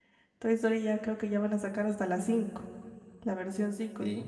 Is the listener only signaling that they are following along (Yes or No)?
Yes